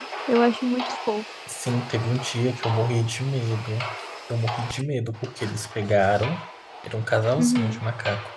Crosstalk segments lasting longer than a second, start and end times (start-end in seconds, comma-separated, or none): none